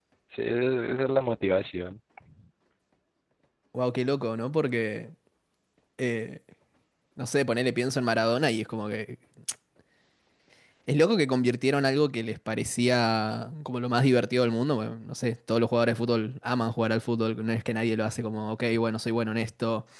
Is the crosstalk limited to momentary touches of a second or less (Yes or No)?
Yes